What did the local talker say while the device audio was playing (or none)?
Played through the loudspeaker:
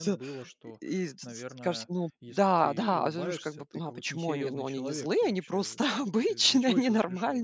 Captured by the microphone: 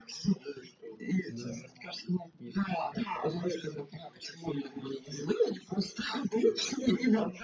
Да.